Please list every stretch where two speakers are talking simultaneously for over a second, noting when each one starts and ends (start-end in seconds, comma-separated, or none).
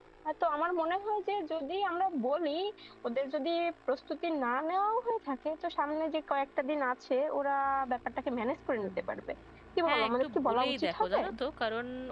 9.9-11.2